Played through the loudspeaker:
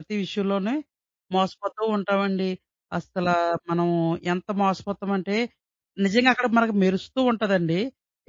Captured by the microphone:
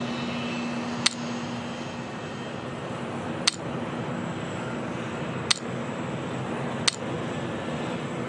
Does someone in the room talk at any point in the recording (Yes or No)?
No